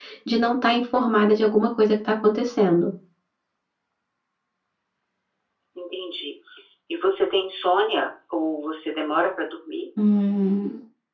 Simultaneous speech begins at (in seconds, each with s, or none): none